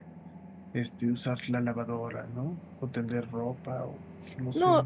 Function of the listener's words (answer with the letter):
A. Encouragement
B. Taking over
B